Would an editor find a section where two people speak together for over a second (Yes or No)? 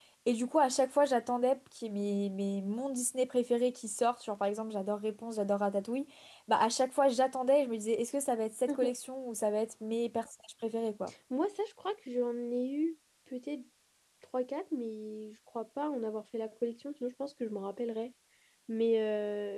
No